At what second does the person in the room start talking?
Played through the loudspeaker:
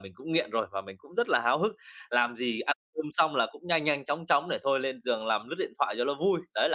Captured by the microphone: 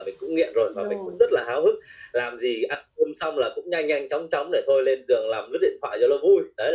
0.8 s

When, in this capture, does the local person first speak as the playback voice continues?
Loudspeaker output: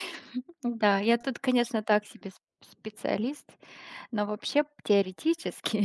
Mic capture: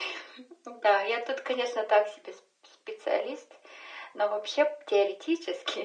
none

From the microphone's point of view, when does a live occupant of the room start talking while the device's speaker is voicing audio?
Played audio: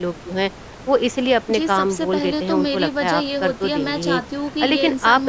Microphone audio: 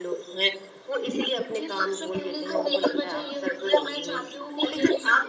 none

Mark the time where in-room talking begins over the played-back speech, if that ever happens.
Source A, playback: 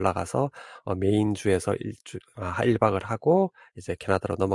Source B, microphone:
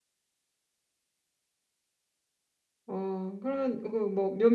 2.9 s

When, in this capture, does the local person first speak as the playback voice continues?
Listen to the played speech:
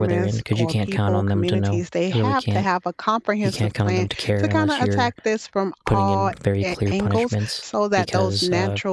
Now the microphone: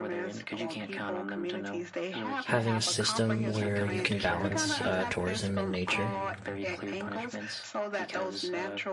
2.4 s

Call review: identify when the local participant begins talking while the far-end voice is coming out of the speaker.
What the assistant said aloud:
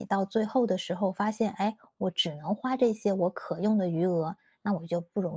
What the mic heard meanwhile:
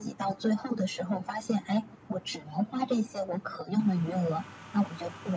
none

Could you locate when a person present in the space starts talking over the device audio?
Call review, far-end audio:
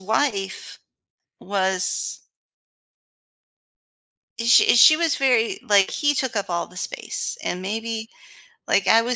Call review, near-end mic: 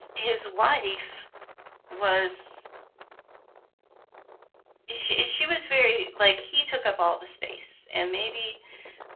none

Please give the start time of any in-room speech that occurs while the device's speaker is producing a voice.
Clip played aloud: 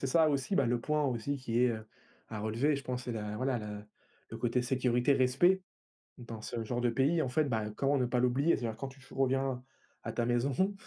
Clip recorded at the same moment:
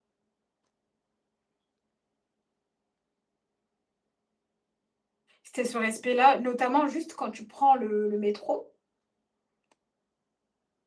5.4 s

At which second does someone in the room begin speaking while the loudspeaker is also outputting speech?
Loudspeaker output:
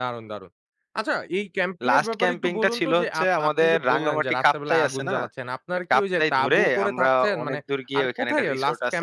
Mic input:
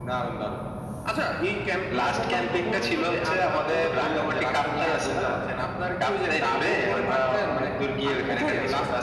none

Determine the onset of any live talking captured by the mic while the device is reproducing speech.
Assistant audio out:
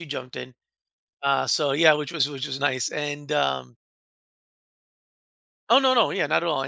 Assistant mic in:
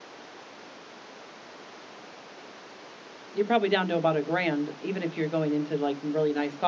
3.3 s

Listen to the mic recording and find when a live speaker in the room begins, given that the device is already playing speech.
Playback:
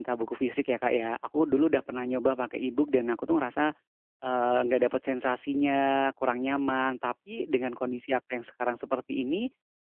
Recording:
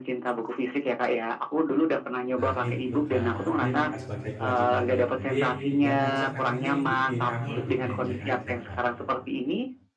2.4 s

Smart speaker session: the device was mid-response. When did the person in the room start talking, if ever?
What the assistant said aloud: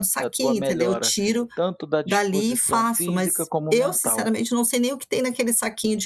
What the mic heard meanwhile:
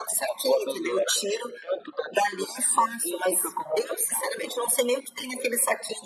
none

